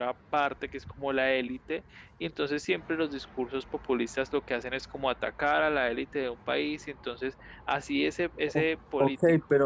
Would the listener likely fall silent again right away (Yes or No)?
No